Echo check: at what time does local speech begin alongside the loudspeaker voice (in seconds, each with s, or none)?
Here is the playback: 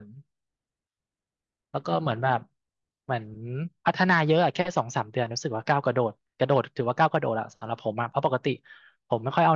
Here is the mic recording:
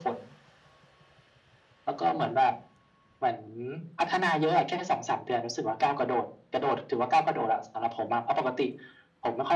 none